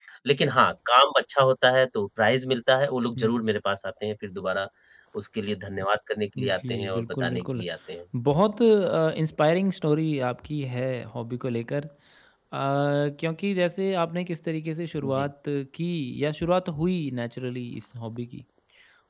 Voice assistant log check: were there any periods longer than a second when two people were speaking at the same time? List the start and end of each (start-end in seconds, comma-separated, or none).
6.4-7.6